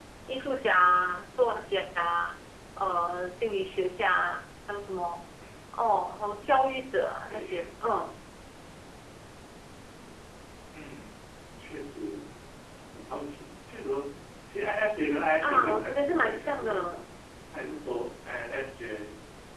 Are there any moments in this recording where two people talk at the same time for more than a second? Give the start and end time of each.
15.4-16.9

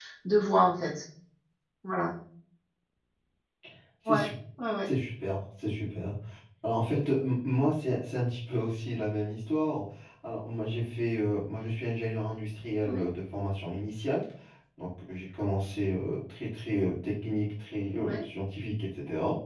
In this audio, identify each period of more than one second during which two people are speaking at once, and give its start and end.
none

